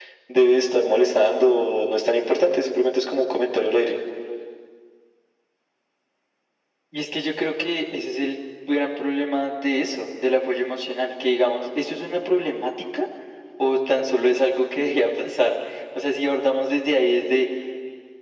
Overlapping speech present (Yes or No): No